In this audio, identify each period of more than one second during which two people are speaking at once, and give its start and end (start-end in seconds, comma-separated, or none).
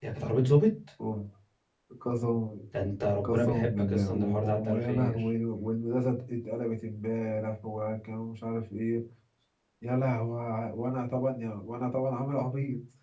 3.2-5.3